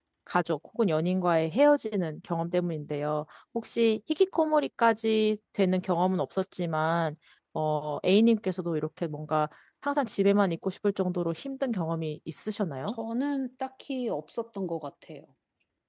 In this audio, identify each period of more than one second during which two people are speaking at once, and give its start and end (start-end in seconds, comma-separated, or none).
none